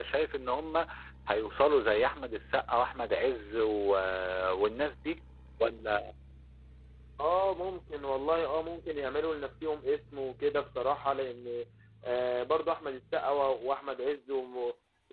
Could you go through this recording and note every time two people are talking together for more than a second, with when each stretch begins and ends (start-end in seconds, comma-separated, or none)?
none